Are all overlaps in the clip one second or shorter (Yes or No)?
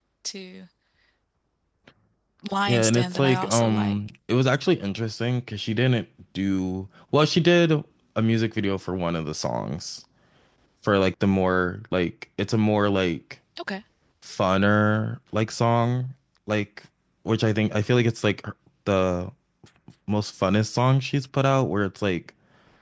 No